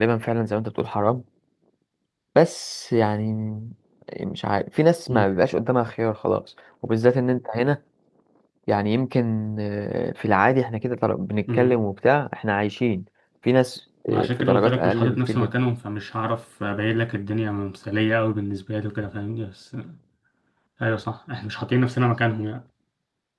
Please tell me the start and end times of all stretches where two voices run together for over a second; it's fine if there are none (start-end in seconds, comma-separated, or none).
14.1-15.5